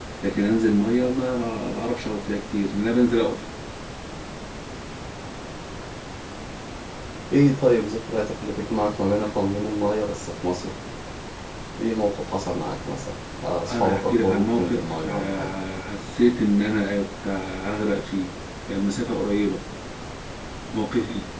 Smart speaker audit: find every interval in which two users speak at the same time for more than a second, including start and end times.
13.7-15.5

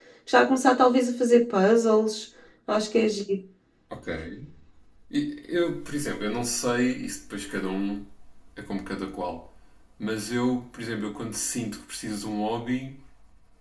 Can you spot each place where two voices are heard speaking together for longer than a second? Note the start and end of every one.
none

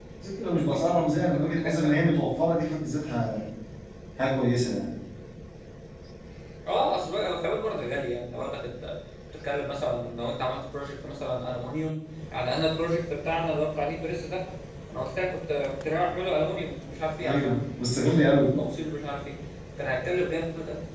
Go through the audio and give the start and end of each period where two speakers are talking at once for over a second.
0.9-2.1

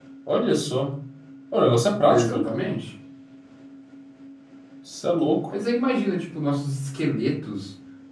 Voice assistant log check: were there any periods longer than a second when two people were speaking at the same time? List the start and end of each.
none

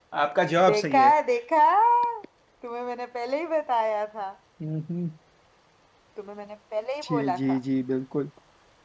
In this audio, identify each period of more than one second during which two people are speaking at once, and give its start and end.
none

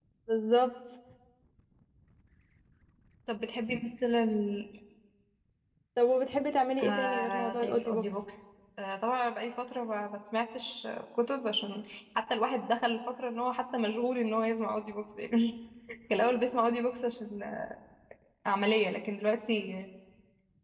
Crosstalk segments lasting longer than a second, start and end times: 6.8-8.0

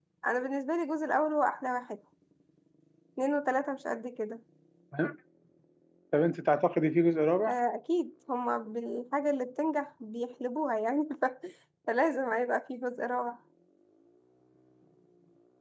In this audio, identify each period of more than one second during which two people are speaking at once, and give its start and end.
none

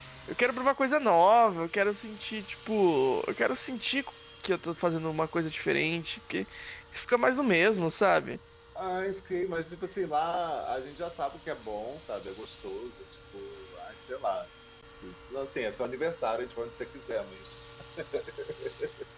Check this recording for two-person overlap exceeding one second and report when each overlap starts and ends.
none

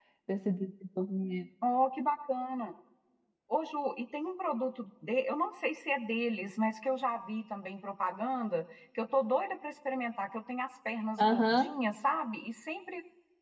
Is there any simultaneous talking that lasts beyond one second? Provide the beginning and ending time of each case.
none

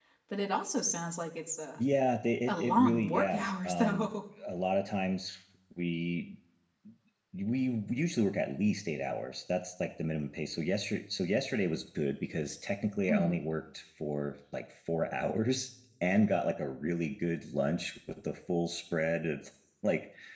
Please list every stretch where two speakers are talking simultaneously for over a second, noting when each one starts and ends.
2.5-4.2

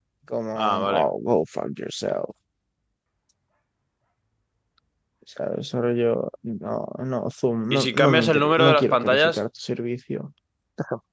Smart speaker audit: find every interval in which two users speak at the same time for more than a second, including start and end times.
7.7-9.4

